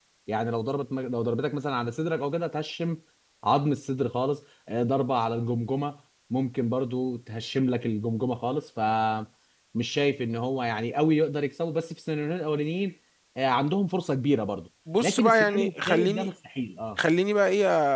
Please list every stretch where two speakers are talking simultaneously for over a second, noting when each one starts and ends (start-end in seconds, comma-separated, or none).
15.0-16.3